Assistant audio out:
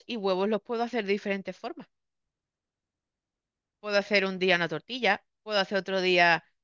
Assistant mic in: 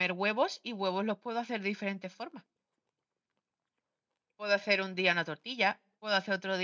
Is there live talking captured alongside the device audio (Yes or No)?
No